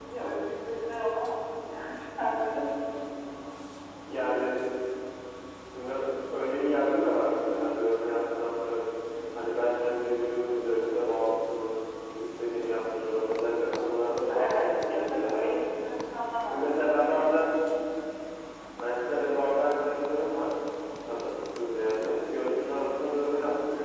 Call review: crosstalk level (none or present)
present